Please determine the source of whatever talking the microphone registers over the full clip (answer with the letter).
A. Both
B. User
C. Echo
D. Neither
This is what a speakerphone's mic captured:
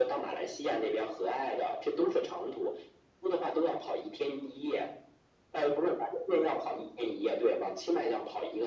C